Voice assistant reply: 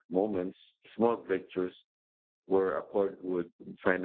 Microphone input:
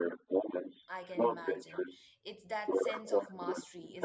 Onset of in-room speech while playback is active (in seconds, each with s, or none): 0.9 s